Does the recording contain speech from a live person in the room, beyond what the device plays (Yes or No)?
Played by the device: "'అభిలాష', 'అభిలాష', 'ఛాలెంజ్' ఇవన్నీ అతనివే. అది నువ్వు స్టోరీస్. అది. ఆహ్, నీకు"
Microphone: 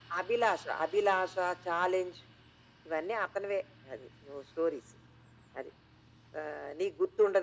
No